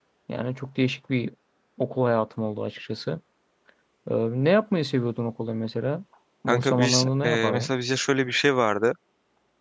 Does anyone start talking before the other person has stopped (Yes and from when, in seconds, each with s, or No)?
Yes, from 6.5 s